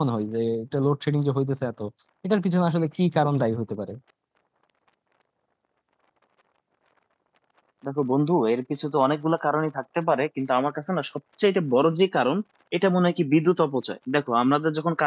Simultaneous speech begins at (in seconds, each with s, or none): none